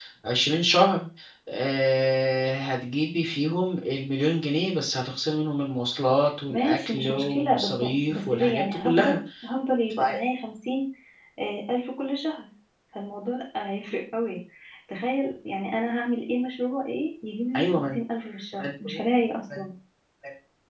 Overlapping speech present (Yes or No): Yes